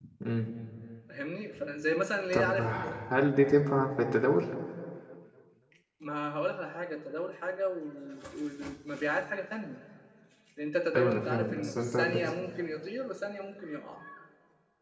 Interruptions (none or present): present